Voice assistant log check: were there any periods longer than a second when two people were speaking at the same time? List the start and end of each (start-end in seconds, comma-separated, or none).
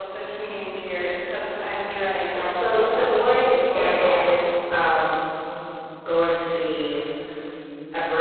2.4-4.4